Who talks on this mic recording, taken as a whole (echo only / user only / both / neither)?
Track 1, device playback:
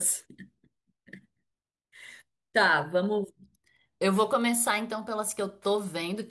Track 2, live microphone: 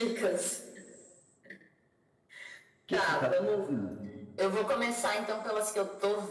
both